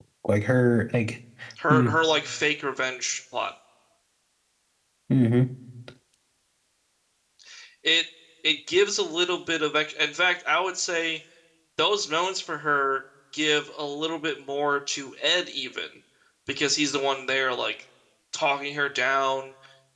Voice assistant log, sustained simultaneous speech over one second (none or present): none